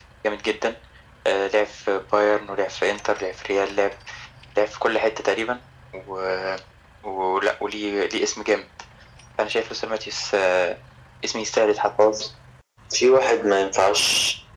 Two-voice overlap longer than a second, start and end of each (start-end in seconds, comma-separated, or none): none